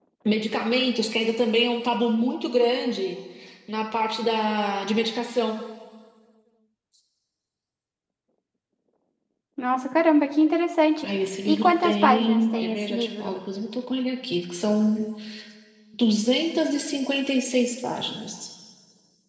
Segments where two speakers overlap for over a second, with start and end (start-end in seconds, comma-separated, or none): 11.4-13.3